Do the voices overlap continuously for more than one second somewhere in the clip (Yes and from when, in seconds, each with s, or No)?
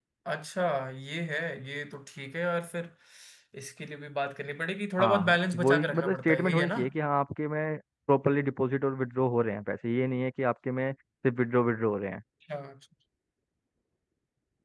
Yes, from 5.0 s